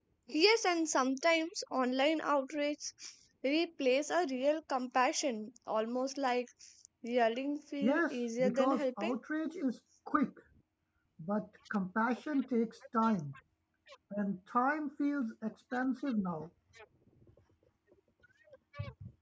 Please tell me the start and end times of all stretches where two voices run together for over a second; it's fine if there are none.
7.8-9.2

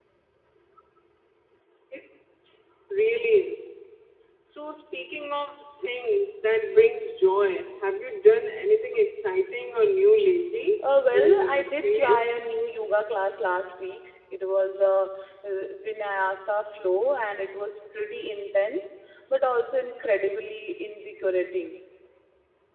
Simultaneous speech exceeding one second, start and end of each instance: 11.1-12.3

